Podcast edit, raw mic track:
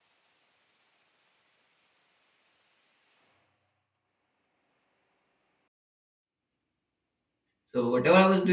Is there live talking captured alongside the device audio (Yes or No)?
Yes